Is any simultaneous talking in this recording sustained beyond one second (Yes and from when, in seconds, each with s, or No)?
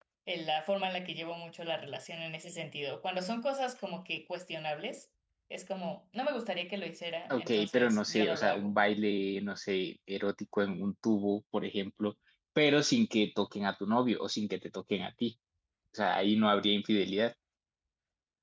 Yes, from 7.3 s